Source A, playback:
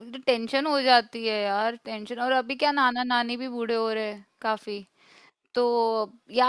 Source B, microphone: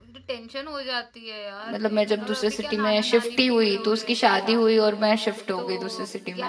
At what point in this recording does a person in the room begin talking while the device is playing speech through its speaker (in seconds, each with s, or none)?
1.7 s